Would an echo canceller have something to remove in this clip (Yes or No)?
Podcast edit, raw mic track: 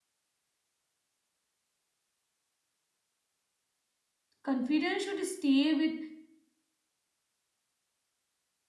No